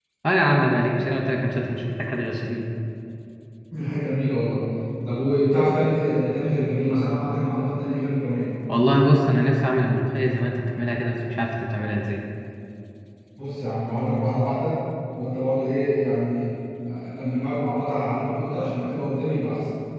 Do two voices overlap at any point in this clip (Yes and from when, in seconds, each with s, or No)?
No